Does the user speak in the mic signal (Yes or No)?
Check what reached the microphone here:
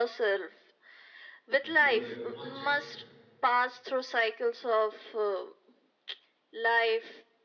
Yes